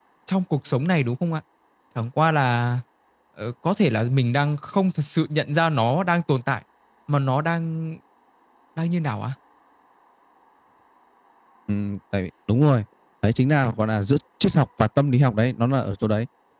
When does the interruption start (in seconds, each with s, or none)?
none